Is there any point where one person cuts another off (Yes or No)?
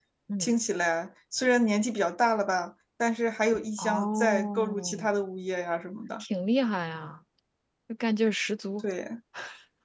Yes